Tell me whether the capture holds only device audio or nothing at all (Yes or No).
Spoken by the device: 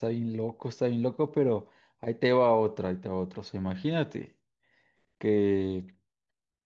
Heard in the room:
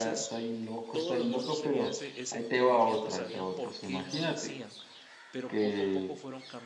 No